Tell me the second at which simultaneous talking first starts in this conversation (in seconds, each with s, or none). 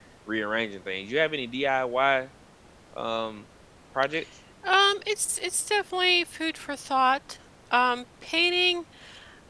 none